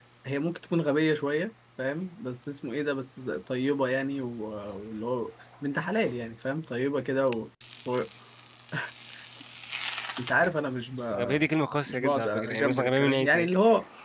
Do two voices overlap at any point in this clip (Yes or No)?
Yes